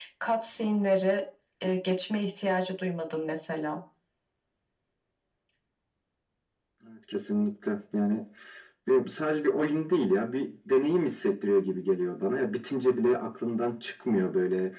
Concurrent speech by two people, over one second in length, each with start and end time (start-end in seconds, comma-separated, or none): none